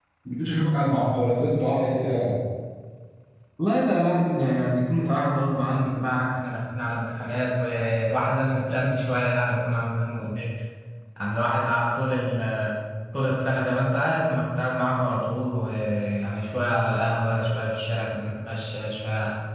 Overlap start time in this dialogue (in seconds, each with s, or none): none